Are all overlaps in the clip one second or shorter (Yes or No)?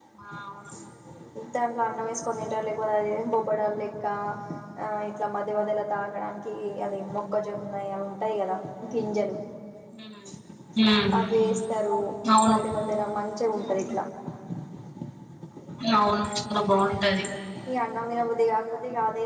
Yes